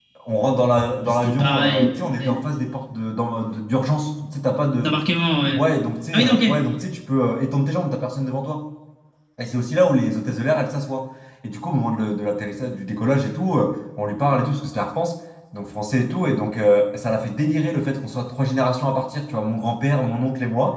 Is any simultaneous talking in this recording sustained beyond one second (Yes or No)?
Yes